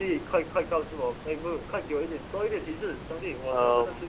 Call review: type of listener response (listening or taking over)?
taking over